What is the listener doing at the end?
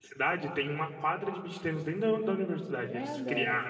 listening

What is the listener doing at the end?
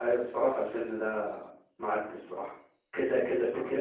listening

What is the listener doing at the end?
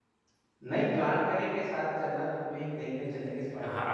taking over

